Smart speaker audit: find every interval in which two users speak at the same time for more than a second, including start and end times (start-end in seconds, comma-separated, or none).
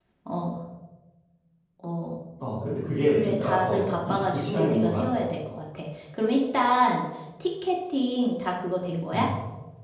3.1-5.2